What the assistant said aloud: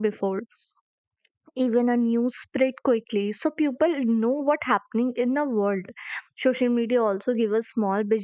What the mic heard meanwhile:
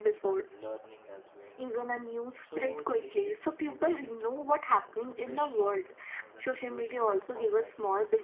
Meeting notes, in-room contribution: present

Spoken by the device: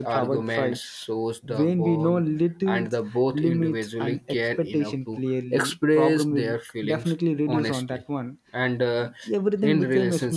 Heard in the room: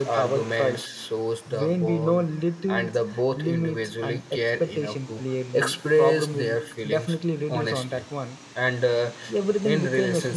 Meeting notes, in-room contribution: none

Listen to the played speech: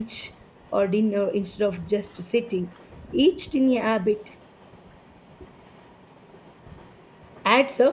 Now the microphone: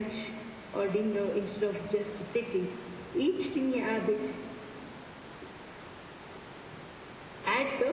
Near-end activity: none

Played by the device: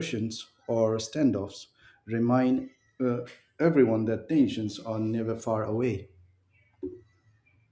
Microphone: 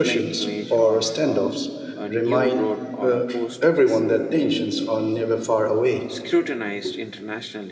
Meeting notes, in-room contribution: present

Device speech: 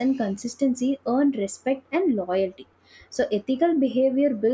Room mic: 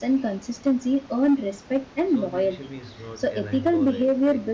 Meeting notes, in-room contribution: present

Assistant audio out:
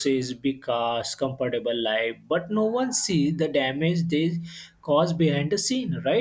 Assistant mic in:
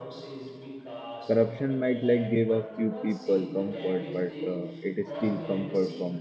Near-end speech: present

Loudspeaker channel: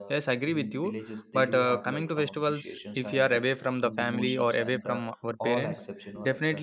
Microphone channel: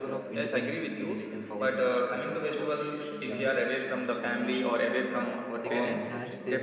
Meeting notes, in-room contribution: present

